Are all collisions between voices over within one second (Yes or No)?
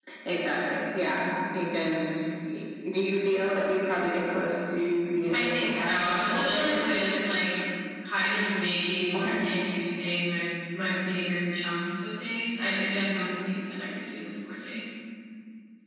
No